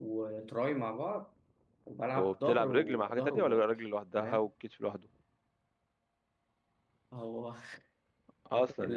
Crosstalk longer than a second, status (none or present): present